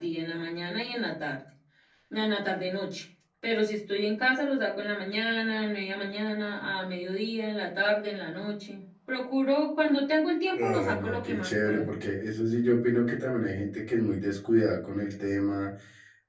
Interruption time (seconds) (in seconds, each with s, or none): 10.6 s